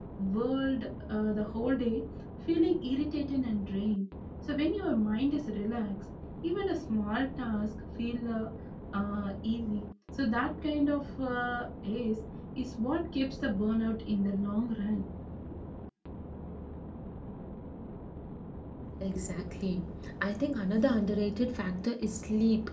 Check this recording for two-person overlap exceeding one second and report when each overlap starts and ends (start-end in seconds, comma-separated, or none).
none